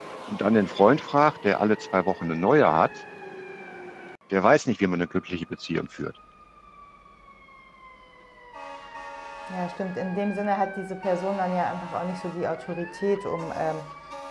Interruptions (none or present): none